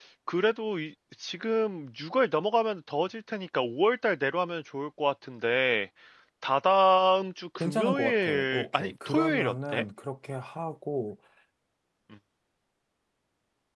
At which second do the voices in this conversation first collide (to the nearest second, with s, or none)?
8 s